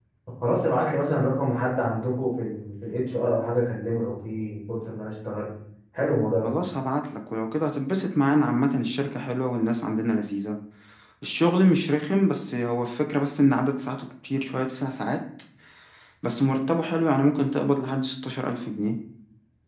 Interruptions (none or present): none